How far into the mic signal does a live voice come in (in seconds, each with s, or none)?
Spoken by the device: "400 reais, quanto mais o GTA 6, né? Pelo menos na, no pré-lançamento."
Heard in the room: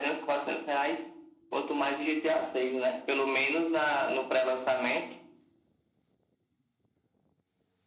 none